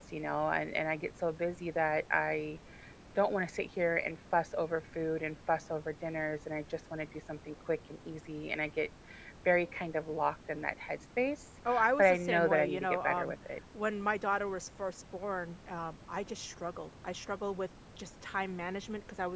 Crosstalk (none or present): present